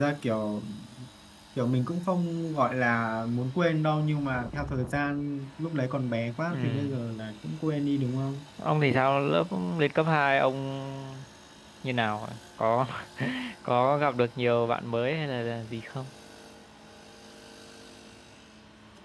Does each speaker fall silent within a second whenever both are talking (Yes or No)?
Yes